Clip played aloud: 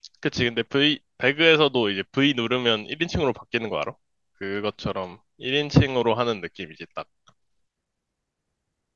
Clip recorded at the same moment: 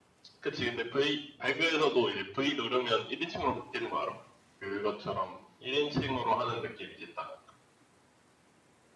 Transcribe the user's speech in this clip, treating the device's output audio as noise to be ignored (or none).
none